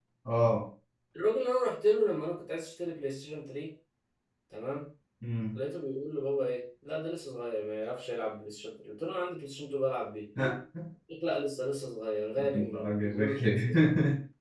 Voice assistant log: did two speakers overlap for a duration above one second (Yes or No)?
Yes